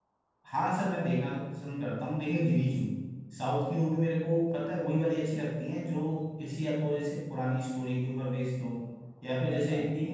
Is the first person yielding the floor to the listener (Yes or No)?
No